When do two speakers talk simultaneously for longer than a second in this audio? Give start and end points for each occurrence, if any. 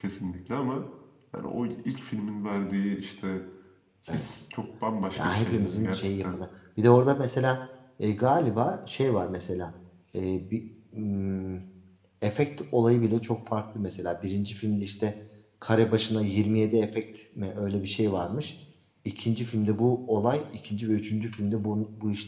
5.2-6.4

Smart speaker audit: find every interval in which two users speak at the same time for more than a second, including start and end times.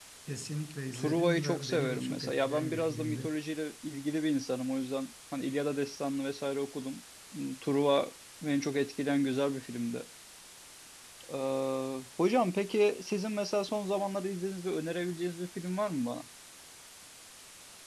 0.9-3.4

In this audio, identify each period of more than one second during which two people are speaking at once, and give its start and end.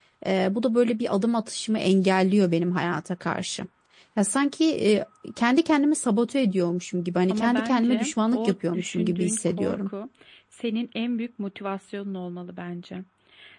7.3-9.9

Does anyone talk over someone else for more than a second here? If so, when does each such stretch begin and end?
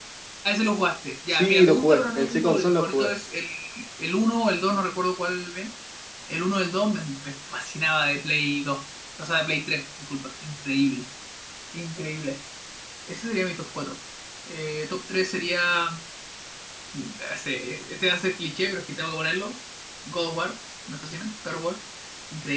1.3-3.1

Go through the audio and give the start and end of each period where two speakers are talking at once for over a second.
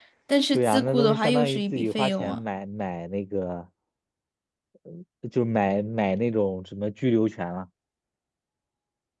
0.5-2.4

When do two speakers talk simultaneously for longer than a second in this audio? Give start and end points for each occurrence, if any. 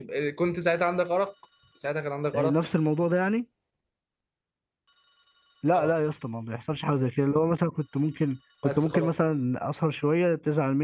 none

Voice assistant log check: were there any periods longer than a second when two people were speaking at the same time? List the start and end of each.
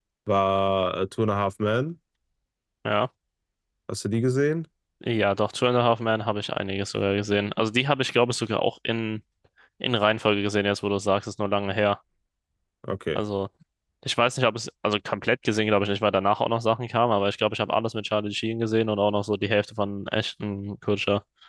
none

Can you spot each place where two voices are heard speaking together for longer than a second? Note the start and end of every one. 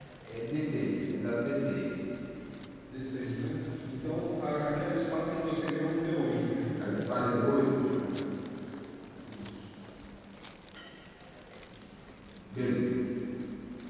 none

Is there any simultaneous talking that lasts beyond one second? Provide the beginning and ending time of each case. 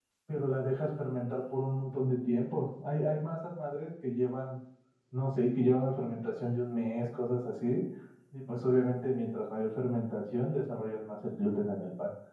none

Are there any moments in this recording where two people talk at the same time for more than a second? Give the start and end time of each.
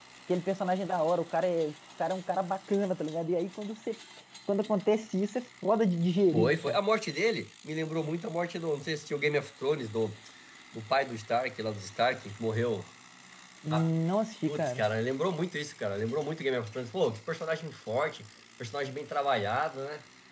none

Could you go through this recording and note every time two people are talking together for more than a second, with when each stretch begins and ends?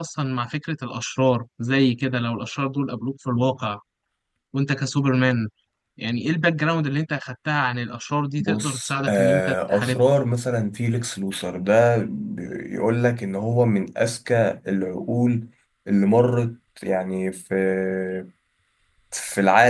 8.4-10.0

